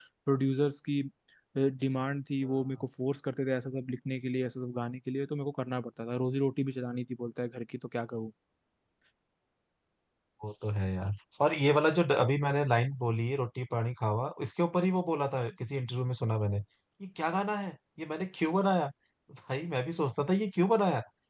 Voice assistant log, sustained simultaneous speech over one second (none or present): none